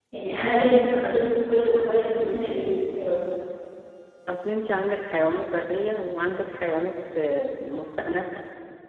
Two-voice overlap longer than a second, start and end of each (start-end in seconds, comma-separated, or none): none